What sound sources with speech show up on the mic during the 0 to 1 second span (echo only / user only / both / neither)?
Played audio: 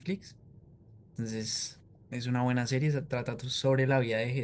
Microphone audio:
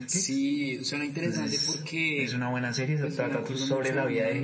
both